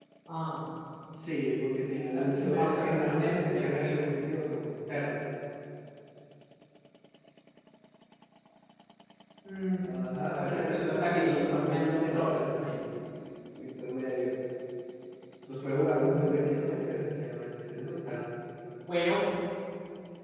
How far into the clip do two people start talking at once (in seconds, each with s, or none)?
2.1 s